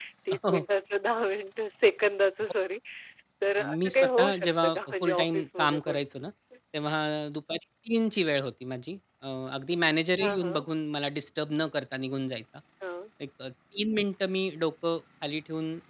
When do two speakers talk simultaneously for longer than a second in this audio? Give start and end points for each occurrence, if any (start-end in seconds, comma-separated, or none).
3.6-6.0